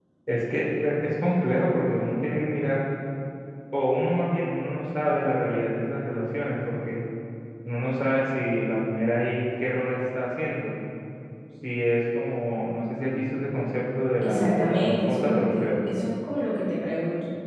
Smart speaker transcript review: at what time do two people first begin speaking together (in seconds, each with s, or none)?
14.2 s